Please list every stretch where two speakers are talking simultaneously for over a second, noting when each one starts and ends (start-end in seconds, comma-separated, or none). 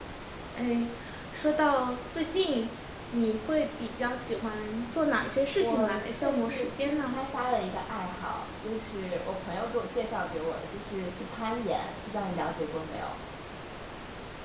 5.6-7.2